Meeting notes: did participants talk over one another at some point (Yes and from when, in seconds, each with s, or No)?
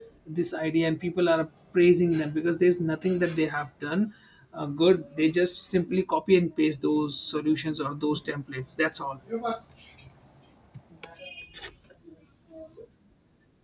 No